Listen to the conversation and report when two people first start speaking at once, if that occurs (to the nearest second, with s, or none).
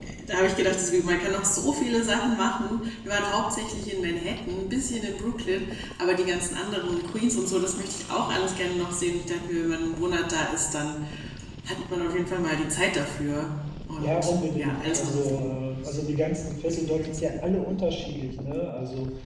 14 s